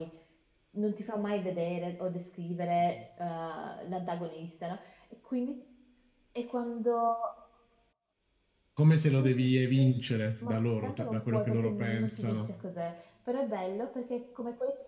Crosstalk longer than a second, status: present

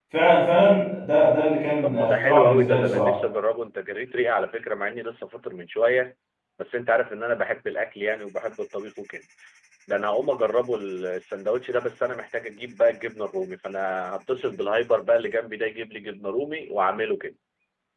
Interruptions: present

